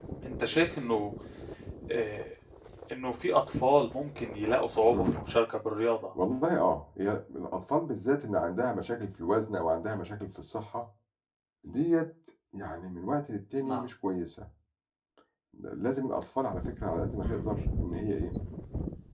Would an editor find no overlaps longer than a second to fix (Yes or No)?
Yes